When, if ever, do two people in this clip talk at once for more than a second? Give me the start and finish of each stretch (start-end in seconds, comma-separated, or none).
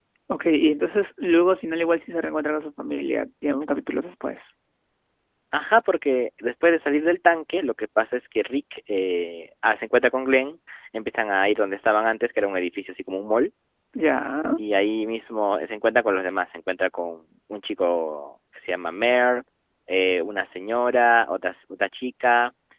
none